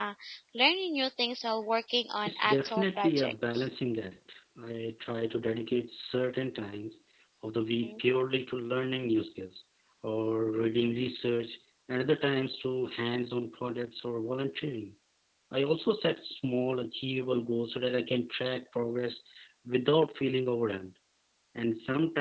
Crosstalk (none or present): present